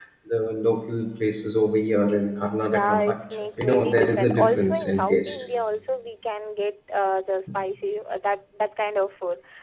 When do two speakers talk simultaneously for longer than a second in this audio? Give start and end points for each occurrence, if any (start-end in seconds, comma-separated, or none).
2.6-5.4